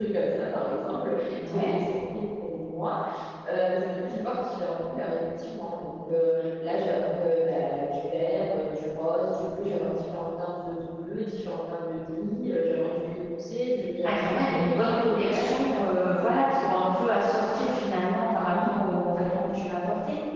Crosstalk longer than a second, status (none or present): present